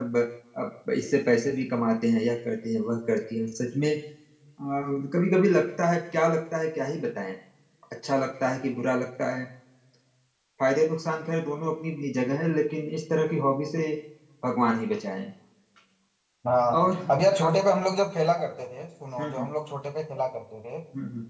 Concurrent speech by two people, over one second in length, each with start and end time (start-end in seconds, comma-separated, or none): none